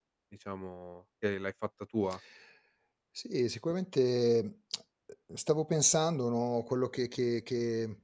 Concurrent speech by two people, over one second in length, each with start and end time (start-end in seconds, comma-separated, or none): none